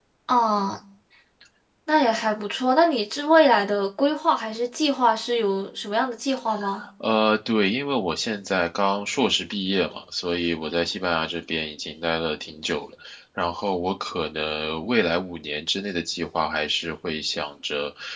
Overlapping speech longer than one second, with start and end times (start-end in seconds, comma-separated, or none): none